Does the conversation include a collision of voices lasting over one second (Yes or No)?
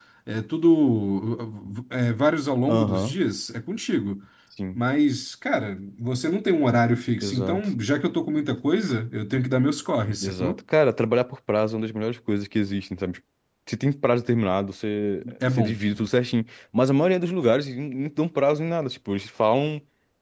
No